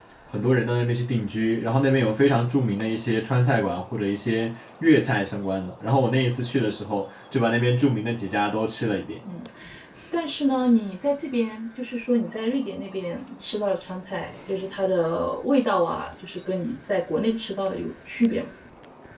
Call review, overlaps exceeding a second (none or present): none